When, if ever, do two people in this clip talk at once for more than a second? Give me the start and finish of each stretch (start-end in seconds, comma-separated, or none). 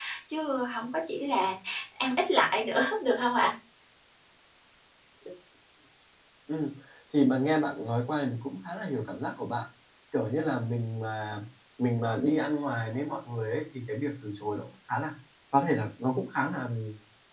none